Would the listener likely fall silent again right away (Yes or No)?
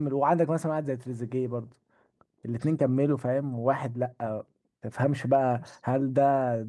Yes